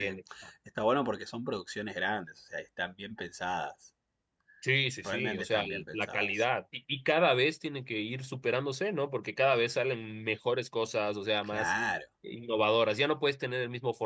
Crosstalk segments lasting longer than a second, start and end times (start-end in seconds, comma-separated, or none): 5.0-6.4